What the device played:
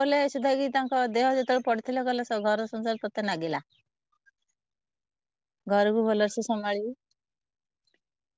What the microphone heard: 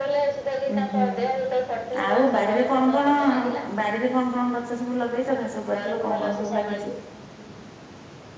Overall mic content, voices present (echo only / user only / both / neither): both